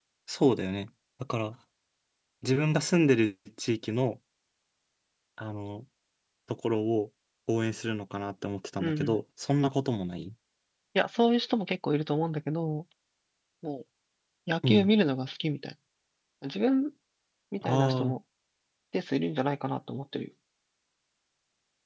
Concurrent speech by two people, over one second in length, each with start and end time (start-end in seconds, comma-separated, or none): none